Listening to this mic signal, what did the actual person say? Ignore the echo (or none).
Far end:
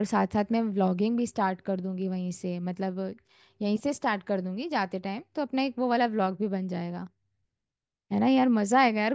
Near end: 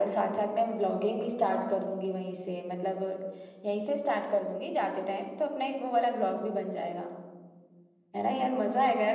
none